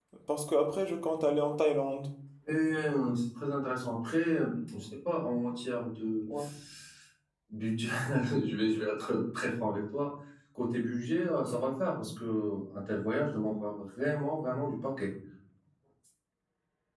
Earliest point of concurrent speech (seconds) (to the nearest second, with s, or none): none